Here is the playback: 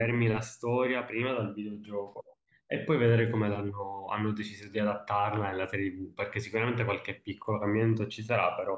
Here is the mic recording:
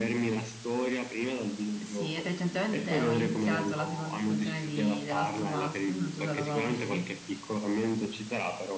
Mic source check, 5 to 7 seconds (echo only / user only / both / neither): both